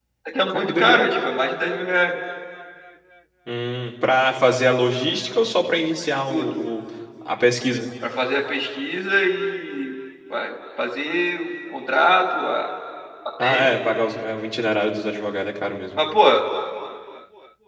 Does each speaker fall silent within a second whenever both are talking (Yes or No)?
Yes